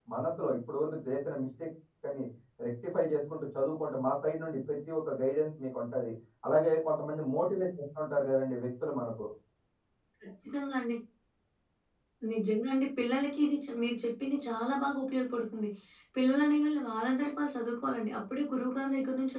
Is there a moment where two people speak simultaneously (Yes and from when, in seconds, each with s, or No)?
No